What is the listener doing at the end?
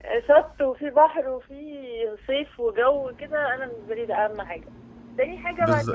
taking over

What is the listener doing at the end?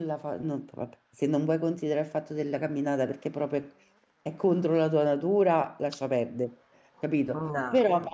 listening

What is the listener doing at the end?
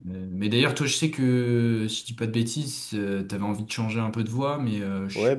taking over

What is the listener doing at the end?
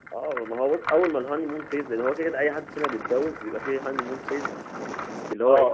listening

